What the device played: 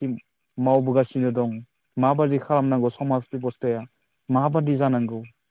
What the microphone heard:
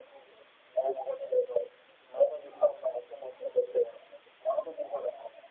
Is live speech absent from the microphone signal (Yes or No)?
Yes